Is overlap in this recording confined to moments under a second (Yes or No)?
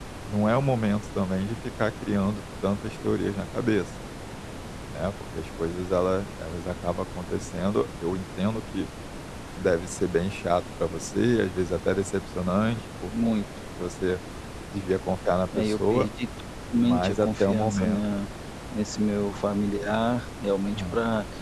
No